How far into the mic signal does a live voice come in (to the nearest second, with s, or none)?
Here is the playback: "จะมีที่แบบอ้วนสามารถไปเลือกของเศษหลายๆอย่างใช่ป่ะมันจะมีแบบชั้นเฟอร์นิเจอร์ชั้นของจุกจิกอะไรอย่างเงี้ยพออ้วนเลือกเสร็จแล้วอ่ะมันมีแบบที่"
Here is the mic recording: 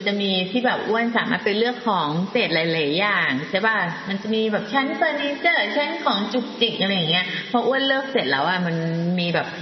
none